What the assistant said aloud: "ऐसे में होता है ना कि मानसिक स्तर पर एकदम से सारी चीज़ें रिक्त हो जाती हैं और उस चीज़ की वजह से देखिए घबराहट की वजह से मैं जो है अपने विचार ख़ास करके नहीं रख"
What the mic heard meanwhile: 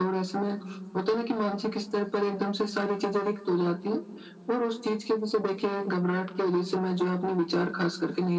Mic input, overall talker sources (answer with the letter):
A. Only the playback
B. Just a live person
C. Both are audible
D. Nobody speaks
A